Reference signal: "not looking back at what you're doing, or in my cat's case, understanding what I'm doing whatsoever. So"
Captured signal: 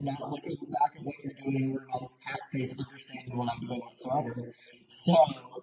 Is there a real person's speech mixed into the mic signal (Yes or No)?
No